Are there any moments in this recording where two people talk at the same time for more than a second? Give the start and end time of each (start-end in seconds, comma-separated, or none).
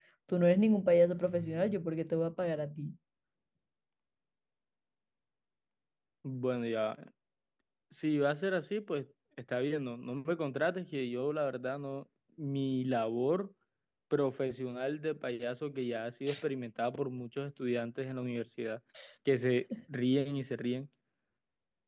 none